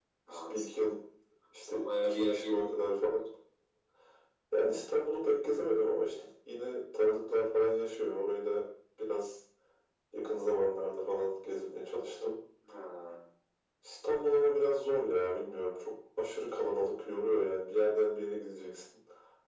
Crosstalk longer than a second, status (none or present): present